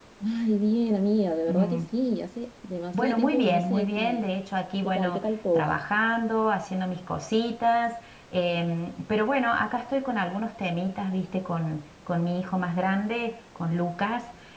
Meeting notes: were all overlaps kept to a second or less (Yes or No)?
No